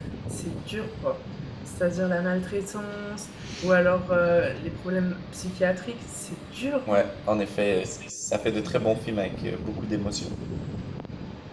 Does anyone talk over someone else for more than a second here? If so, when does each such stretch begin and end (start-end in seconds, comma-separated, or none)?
none